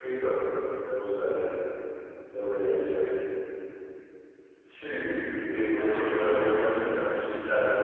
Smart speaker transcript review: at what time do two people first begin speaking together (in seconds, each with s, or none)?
5.7 s